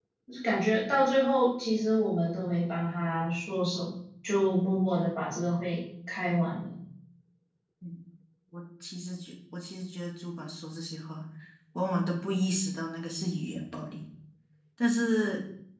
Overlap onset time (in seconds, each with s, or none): none